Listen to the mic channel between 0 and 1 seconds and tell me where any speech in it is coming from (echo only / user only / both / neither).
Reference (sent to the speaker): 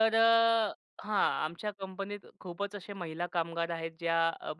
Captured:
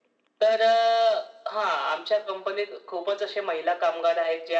echo only